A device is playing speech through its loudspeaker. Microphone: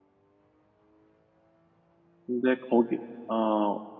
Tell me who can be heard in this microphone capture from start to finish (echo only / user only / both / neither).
user only